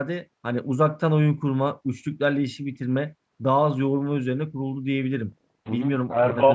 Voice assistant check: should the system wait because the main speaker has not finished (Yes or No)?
No